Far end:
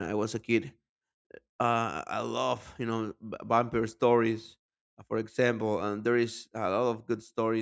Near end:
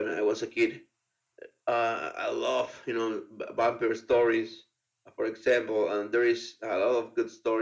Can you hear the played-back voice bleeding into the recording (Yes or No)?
Yes